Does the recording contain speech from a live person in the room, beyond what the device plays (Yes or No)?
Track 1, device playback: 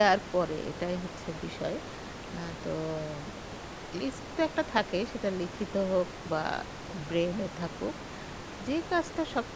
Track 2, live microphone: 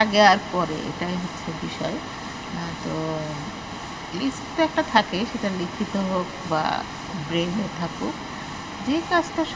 No